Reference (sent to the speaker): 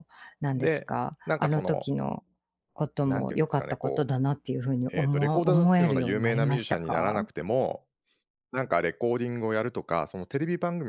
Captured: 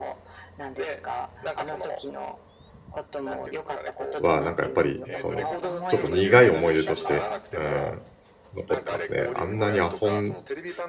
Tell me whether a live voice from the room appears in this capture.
Yes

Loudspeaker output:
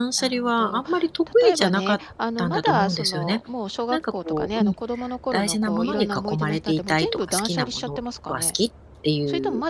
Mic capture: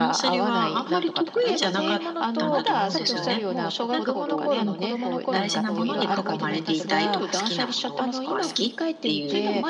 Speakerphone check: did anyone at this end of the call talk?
Yes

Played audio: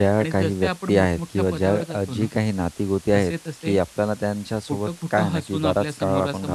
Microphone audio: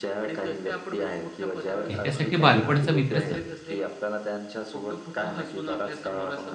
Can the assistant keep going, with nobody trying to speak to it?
No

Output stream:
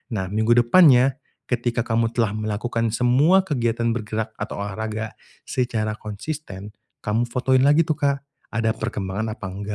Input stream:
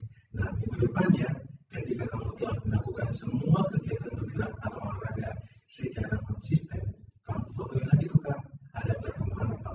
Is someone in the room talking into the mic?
No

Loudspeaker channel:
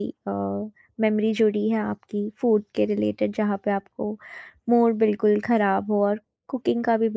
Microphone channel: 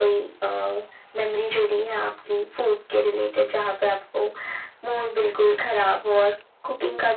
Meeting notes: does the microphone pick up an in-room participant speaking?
No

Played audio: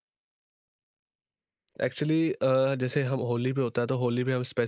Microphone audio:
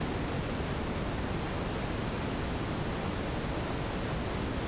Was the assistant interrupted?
No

